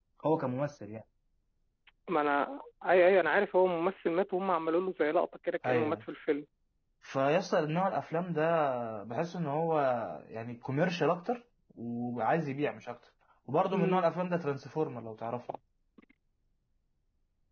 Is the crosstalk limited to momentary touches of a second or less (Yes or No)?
Yes